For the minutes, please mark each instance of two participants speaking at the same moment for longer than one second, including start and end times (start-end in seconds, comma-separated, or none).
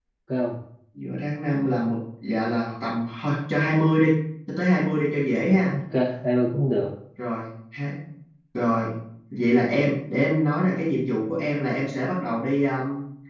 none